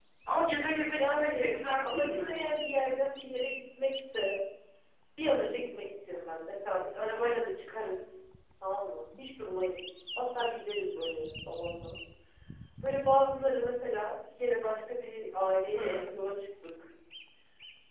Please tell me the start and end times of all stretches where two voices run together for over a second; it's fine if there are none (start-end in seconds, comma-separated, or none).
0.9-2.4